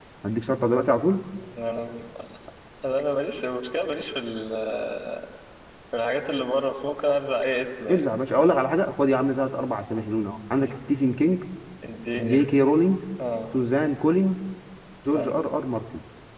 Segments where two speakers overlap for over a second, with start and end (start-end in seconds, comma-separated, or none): none